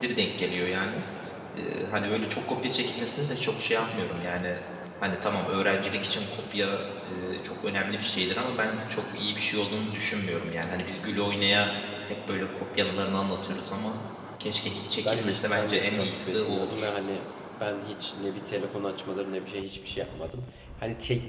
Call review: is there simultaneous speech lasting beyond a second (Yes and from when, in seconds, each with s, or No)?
Yes, from 15.1 s